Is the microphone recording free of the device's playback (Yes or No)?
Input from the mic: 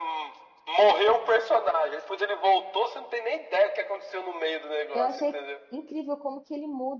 No